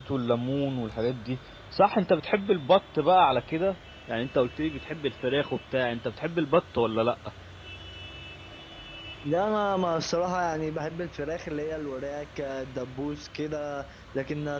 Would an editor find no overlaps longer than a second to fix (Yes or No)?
Yes